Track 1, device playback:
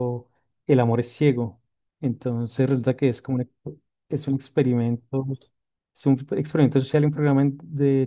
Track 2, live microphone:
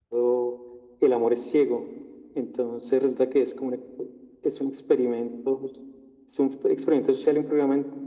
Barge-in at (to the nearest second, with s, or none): none